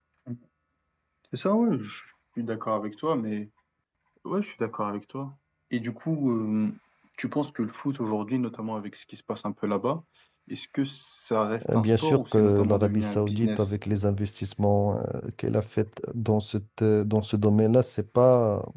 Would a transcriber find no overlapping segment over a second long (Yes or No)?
No